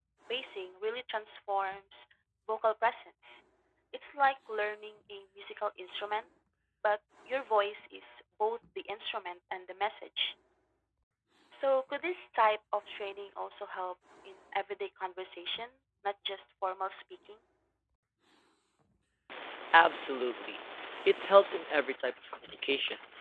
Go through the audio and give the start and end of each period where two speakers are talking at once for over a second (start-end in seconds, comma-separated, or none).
none